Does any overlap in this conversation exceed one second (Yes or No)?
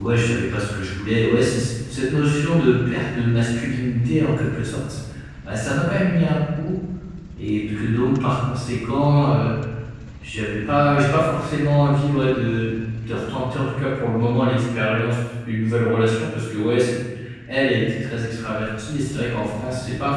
No